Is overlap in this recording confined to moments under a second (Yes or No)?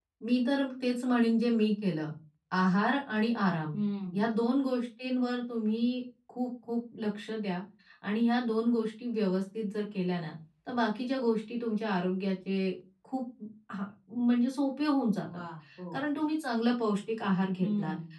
Yes